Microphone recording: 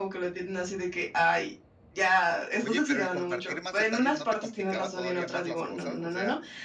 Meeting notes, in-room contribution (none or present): present